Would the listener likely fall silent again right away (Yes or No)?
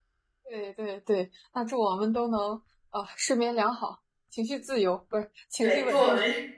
No